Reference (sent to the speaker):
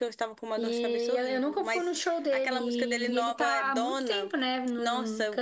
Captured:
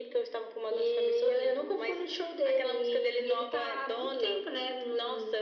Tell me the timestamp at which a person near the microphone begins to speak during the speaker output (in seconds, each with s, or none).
none